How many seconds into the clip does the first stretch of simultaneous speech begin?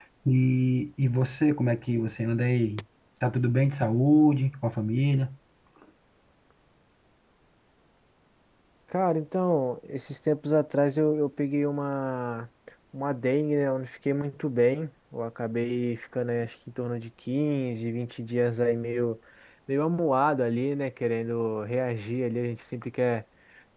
none

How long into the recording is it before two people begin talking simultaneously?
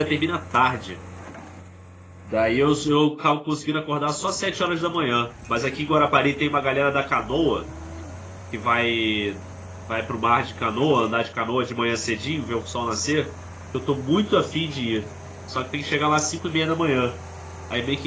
none

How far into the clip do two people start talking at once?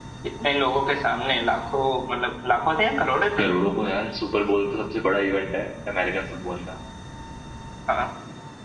none

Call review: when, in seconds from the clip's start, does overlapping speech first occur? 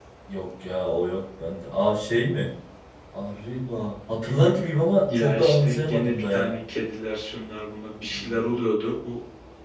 5 s

